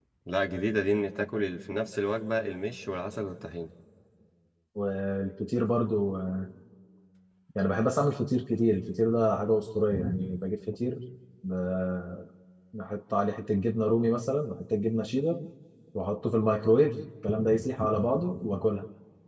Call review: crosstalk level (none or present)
none